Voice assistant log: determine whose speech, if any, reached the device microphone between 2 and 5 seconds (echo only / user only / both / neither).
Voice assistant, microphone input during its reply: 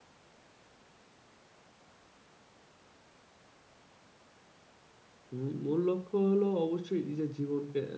neither